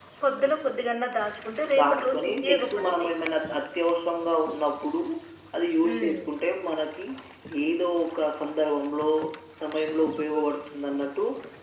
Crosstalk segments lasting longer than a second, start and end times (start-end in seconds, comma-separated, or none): 1.8-3.1